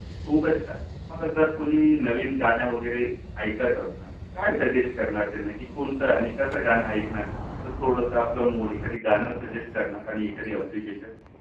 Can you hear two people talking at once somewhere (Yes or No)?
No